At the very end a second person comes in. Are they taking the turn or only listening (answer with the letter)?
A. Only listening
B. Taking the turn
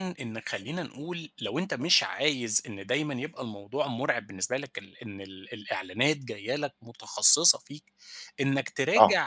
A